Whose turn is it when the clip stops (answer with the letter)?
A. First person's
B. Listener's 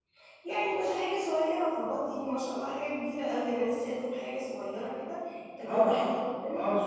B